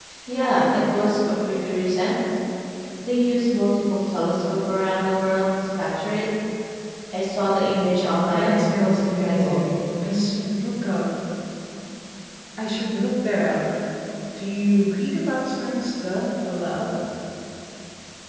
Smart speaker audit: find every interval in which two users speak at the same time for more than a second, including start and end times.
8.3-9.6

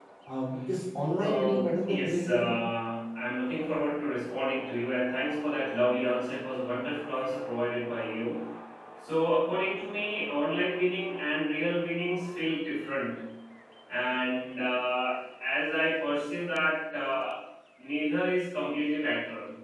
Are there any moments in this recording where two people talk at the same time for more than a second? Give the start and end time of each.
1.2-2.5

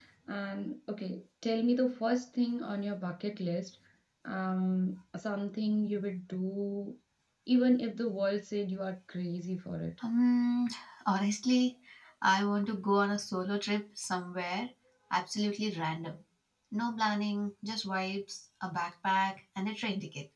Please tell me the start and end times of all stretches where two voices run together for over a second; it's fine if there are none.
none

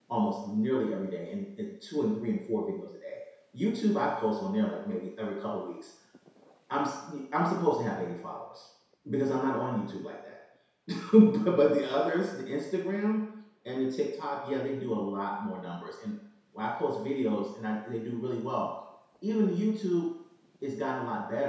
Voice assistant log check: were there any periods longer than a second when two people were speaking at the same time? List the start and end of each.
none

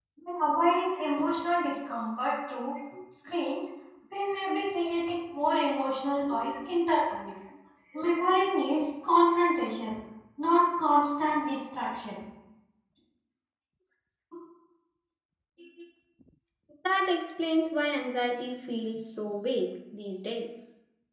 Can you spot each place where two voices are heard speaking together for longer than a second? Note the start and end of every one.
none

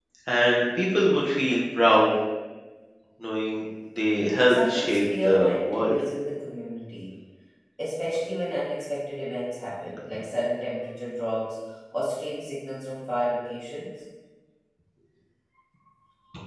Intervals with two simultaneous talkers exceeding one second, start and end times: 4.5-6.0

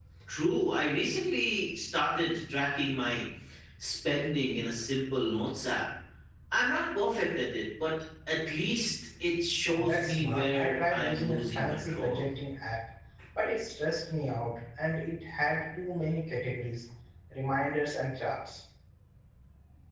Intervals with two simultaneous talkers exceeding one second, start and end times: 9.8-12.2

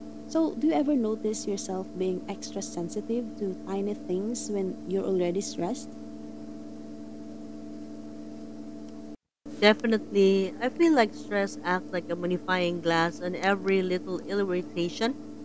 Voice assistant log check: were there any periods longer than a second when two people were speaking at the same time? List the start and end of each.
none

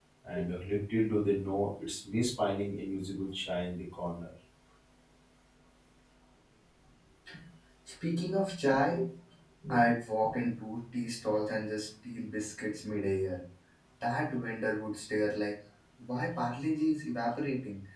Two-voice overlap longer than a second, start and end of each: none

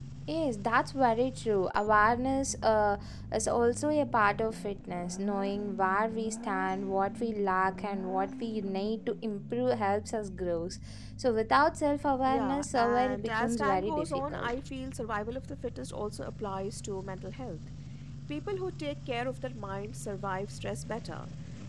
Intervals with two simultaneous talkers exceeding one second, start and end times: 12.3-14.5

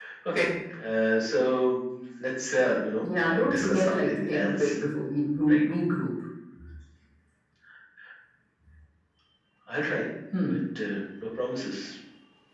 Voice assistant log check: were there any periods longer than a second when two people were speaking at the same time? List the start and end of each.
3.0-4.8

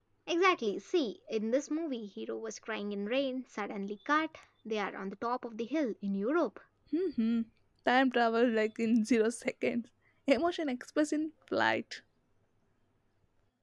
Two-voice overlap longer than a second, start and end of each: none

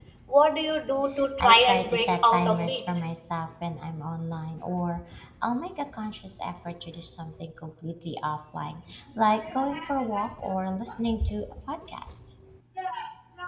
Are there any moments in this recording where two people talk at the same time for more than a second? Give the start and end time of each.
1.4-2.8

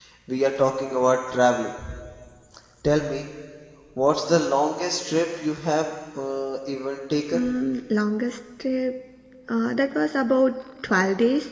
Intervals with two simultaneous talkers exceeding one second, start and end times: none

